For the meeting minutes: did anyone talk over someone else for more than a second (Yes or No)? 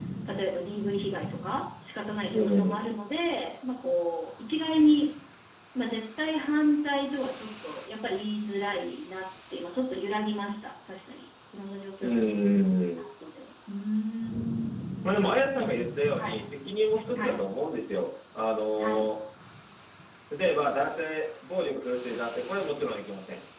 No